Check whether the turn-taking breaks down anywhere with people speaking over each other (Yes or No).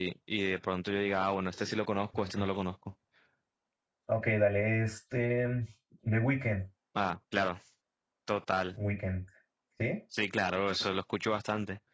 No